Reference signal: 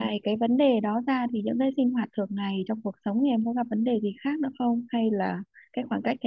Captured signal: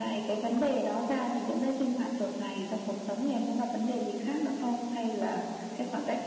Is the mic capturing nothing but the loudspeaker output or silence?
Yes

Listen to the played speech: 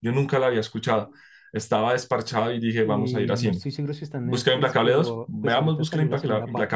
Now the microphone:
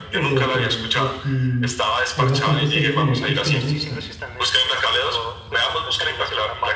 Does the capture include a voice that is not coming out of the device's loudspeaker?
Yes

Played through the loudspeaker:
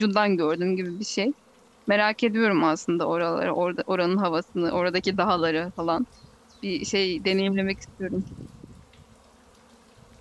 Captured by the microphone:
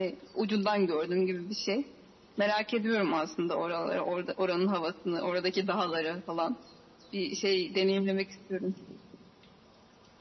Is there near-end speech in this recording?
No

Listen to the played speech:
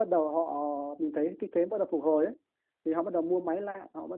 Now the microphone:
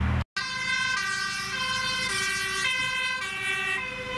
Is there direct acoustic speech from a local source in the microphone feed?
No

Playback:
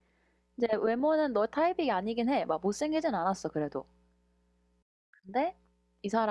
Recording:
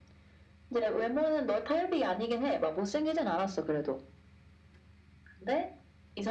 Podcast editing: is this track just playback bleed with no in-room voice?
Yes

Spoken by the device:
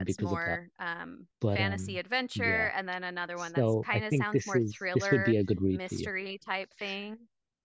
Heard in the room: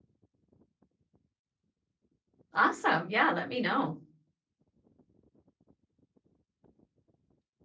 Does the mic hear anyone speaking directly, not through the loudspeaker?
Yes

